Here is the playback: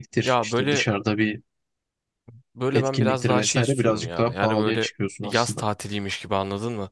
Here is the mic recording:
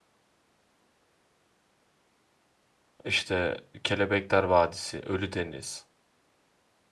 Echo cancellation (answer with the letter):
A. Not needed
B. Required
A